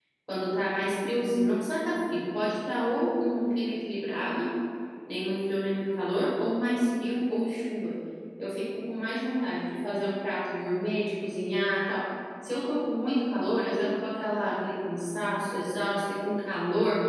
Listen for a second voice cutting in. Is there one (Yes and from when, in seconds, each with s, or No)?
No